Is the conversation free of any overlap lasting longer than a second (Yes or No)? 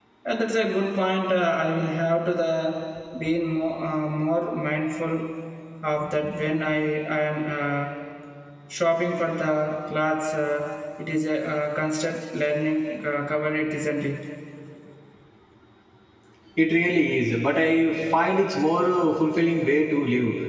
Yes